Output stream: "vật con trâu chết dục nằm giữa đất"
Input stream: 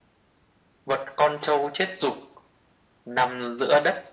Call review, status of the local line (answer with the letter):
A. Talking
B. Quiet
B